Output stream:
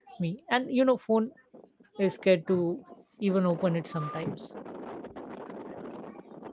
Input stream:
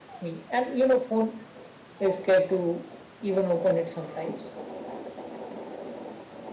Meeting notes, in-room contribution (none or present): none